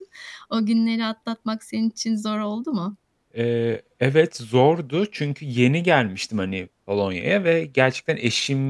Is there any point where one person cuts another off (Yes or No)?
No